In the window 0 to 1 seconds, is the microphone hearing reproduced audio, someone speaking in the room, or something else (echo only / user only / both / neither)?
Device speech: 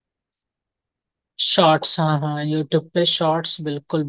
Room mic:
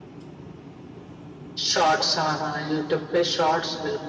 neither